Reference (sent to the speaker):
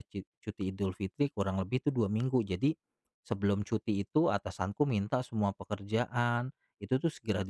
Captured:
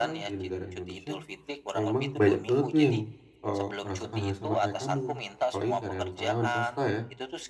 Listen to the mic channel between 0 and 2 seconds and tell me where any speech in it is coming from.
both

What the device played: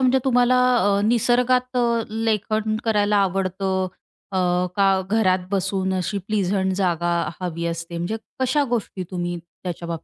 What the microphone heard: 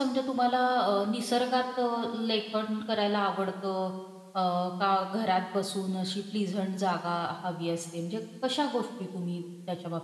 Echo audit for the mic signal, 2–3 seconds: echo only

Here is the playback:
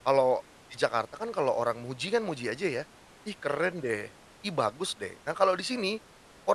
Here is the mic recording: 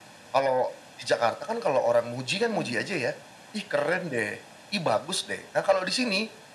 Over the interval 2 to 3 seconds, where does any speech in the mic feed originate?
both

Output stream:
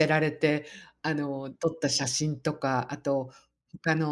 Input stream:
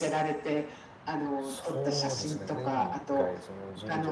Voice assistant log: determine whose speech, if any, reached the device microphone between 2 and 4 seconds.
both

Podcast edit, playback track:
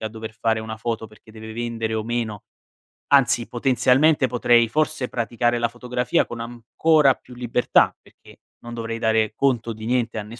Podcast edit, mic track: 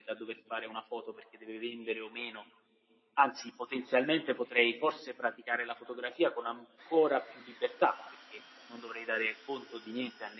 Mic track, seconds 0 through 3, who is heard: echo only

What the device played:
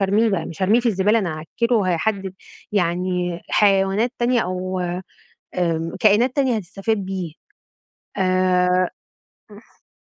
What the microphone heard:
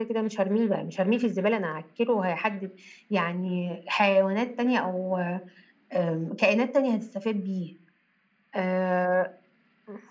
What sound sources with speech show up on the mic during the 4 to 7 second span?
echo only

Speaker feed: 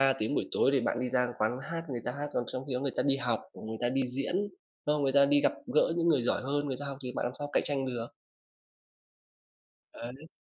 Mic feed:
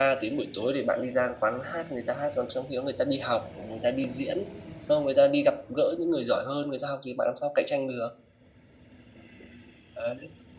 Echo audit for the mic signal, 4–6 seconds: echo only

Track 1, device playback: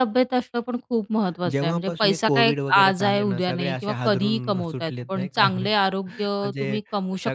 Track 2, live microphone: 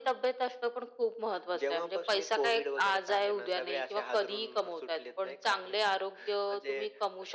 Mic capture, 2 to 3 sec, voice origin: echo only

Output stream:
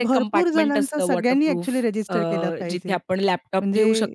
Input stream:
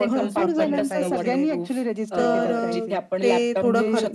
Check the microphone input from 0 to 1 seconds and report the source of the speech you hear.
both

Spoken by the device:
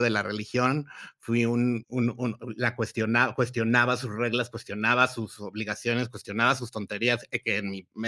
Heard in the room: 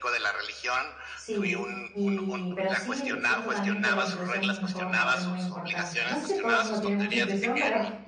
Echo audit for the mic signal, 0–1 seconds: echo only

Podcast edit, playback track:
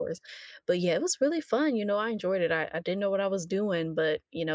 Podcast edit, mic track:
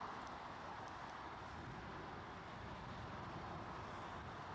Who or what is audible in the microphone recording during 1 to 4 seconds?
neither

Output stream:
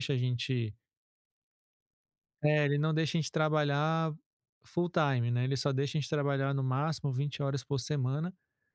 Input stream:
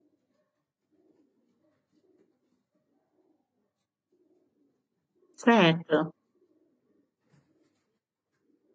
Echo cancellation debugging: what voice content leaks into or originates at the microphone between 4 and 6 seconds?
user only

